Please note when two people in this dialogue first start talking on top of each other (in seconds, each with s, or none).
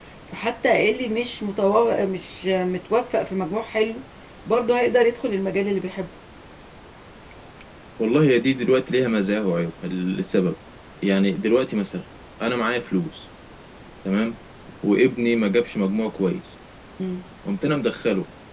none